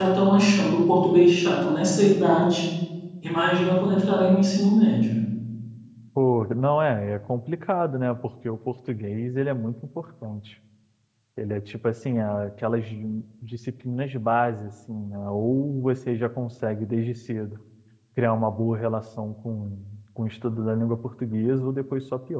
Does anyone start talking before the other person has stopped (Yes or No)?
No